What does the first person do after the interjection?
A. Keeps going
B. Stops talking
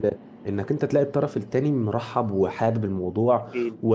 A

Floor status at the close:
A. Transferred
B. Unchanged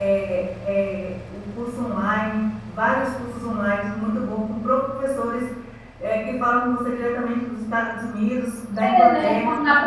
A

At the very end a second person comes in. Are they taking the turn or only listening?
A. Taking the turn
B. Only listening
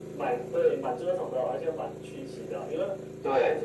B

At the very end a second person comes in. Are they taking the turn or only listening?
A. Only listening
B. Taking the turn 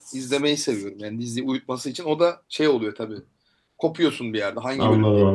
B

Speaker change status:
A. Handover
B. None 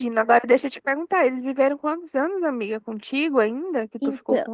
A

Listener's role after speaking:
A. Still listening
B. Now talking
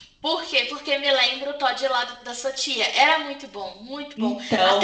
A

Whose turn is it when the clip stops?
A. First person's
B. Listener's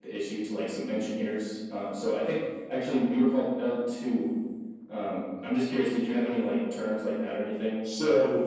B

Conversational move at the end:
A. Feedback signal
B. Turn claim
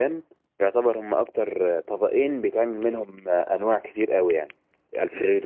A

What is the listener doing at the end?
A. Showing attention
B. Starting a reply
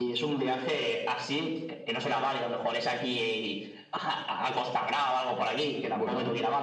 A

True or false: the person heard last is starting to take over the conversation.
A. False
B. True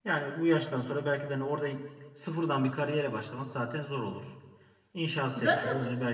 A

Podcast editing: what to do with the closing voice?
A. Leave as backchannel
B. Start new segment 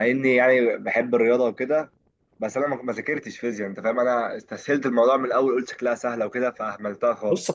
B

